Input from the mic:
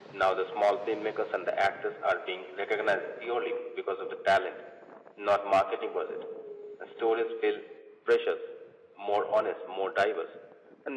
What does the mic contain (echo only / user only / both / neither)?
echo only